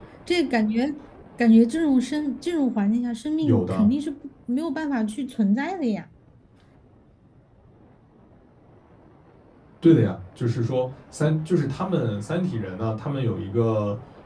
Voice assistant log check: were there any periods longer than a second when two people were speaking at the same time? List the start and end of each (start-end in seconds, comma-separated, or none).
none